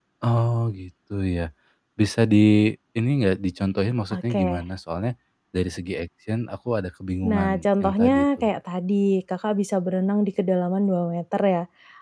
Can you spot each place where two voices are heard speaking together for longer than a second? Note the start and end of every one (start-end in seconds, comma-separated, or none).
7.2-8.4